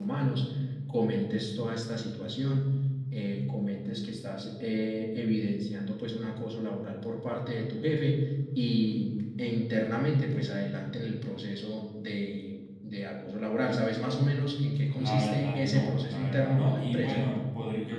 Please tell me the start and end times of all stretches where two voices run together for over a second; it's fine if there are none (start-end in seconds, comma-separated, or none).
14.9-17.3